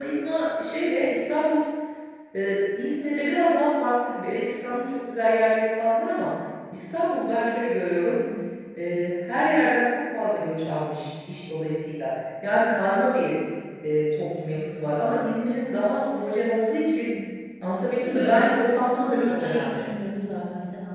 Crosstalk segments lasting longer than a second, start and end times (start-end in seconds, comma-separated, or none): 17.9-19.9